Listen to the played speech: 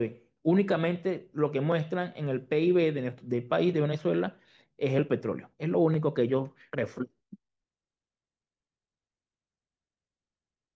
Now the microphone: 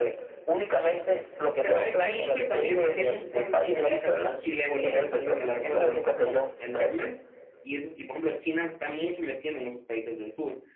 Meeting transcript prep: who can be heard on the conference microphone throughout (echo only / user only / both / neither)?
both